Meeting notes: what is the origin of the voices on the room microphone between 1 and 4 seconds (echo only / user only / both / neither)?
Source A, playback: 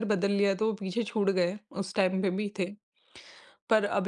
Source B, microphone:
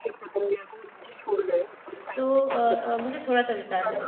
both